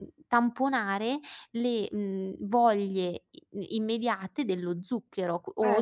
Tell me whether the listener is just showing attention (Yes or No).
No